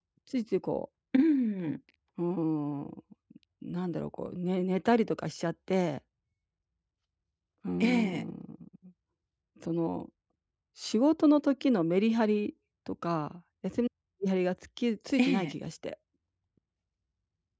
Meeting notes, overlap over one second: none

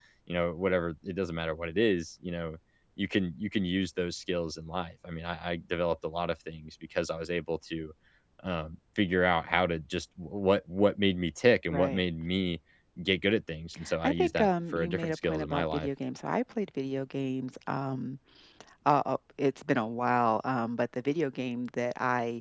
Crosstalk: present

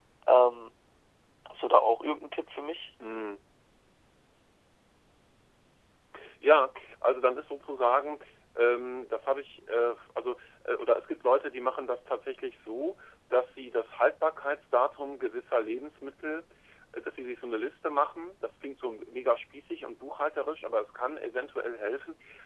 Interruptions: none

